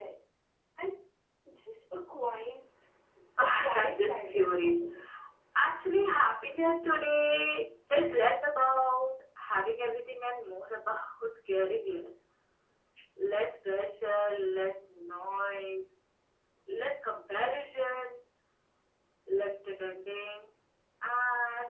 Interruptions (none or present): present